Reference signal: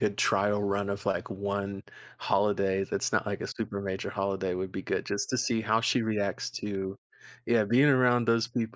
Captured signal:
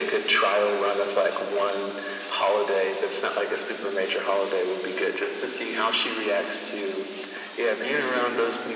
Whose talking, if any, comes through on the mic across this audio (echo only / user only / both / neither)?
echo only